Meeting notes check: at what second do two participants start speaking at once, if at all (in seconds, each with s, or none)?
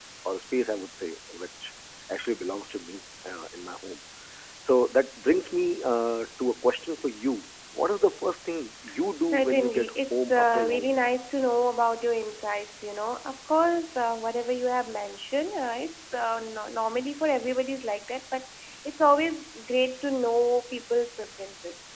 9.3 s